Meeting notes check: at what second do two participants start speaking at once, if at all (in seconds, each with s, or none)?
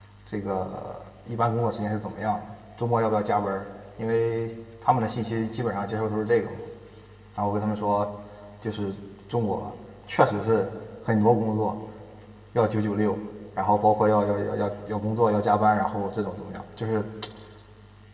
none